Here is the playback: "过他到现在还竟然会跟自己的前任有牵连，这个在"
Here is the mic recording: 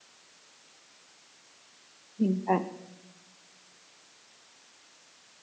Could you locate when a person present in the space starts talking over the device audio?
2.1 s

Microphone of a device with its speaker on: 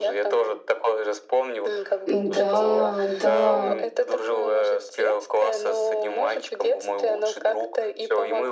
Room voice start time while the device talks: 2.0 s

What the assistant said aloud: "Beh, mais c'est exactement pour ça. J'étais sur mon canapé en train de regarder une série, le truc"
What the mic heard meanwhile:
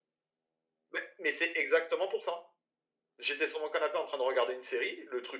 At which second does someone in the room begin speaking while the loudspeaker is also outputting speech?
none

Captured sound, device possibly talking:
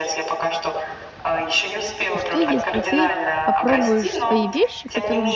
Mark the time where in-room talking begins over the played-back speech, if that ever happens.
2.1 s

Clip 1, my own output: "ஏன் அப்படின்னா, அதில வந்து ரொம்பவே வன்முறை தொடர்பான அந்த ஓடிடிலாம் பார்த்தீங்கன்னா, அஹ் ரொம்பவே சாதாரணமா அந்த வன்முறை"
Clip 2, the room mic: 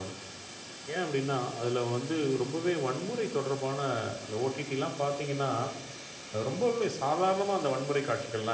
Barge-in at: none

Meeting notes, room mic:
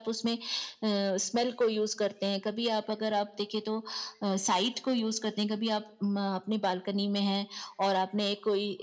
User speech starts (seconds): none

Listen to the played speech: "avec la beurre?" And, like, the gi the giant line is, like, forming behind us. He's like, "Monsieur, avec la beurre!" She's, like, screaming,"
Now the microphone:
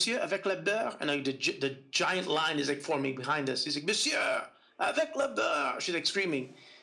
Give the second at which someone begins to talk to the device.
none

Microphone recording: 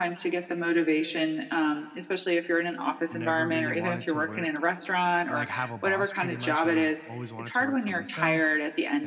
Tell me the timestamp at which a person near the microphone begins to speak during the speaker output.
3.1 s

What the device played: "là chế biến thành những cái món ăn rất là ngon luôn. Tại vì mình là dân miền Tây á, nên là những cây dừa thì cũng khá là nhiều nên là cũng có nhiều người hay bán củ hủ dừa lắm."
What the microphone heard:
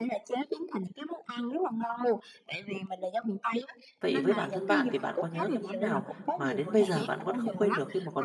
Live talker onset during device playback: 4.0 s

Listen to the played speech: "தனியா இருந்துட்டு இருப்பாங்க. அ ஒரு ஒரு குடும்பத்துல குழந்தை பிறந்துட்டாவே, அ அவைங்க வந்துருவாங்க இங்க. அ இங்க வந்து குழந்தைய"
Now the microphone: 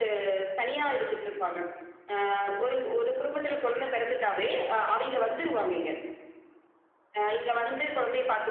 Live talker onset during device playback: none

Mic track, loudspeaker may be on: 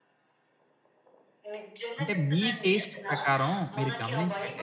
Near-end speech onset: 2.0 s

